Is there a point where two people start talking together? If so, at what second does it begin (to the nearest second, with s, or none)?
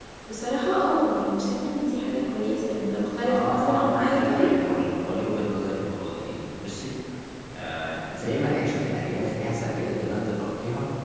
3 s